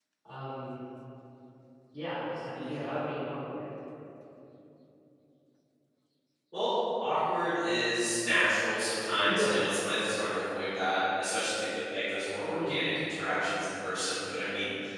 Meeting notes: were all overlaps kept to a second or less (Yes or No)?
Yes